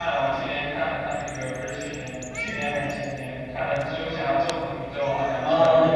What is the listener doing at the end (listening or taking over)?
taking over